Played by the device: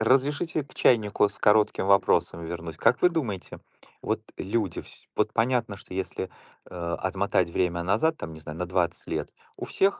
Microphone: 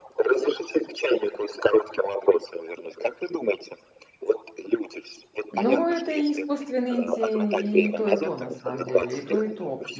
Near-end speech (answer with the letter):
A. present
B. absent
A